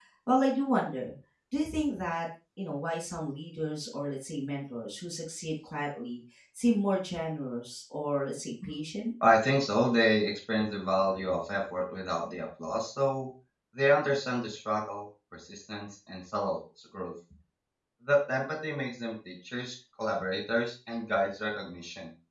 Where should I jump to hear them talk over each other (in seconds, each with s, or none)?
none